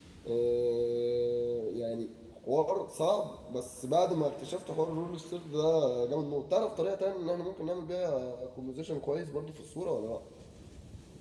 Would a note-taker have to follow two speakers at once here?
No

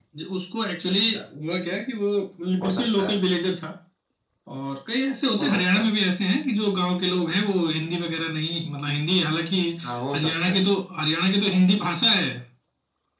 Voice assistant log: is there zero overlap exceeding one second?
Yes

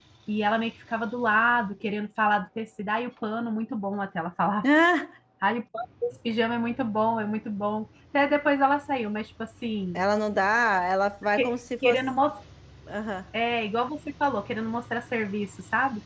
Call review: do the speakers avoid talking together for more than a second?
Yes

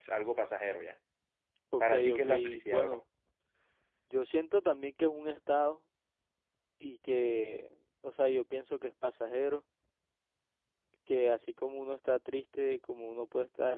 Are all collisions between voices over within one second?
No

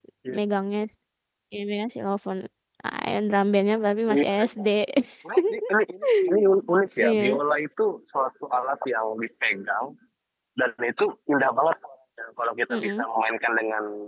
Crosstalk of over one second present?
No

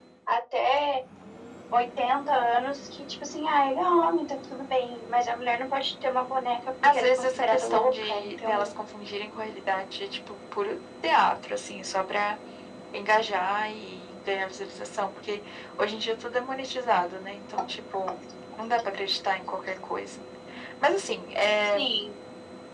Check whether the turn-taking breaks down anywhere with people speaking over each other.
Yes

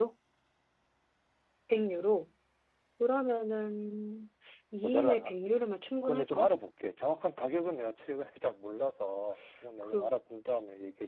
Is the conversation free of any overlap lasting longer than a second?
Yes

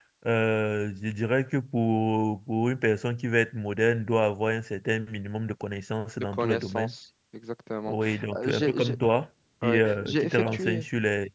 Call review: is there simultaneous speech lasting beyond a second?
Yes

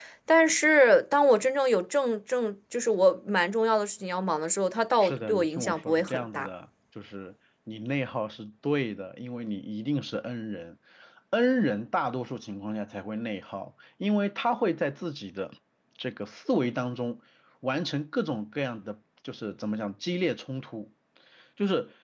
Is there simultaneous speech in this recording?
Yes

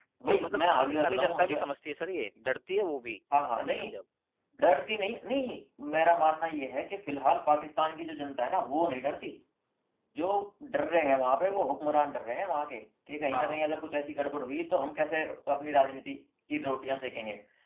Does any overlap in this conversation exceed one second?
Yes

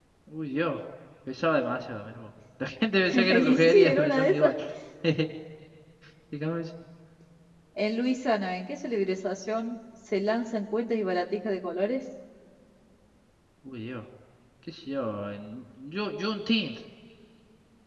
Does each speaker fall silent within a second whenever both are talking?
No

